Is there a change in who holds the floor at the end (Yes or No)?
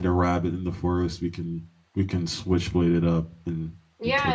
Yes